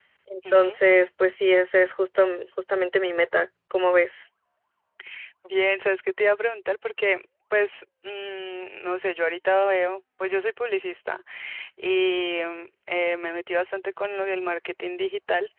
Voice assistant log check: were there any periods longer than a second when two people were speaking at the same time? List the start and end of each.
none

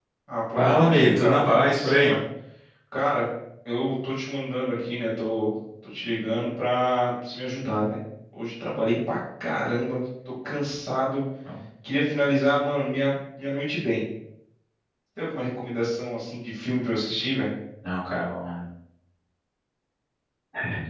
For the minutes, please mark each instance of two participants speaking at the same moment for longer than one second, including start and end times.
0.6-2.1

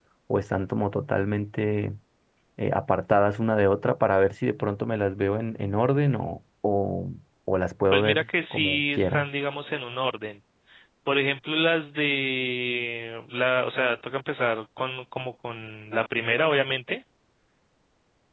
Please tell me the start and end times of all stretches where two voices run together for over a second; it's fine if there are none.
7.9-9.3

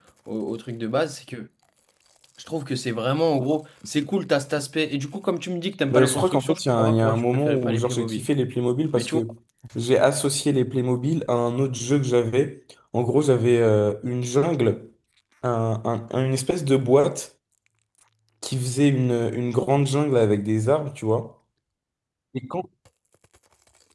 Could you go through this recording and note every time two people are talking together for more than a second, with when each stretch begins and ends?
5.9-8.2

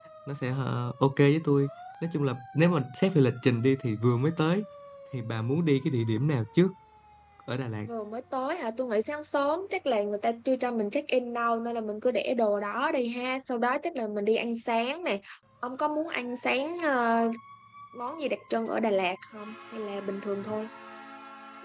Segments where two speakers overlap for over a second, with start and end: none

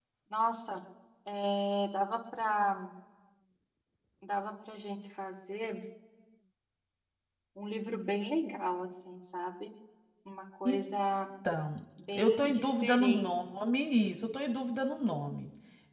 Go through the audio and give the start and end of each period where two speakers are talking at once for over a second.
12.2-13.4

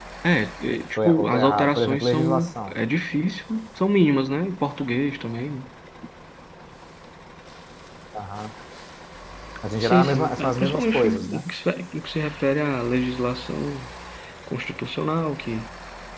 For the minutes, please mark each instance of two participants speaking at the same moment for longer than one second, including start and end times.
0.9-2.7, 9.8-11.4

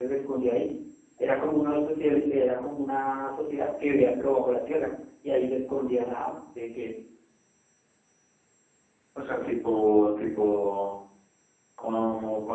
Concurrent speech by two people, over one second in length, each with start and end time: none

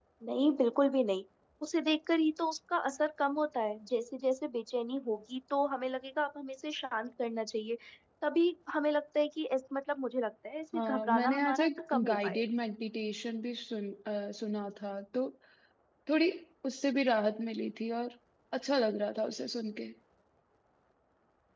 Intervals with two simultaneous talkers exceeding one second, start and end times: 10.7-12.4

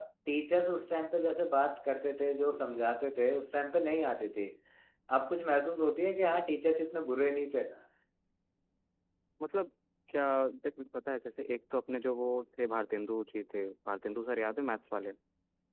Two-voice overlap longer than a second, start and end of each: none

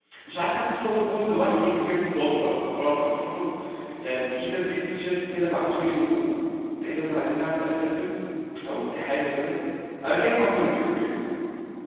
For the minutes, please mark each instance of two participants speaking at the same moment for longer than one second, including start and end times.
none

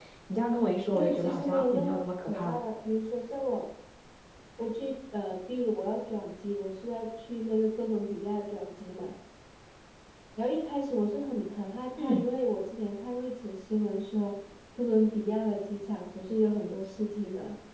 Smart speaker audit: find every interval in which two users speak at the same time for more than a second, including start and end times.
0.9-2.6

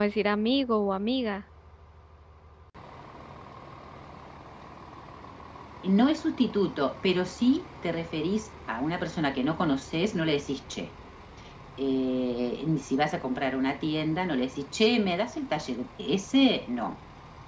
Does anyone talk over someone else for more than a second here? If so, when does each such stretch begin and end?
none

